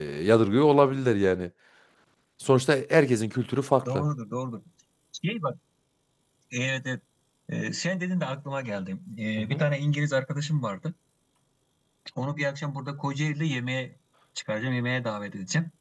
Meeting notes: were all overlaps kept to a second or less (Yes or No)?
Yes